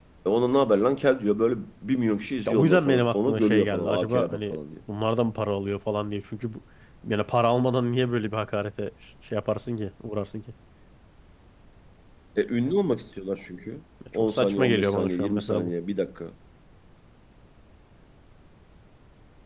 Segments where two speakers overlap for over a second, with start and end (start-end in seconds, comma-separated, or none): 2.5-4.6, 14.1-15.7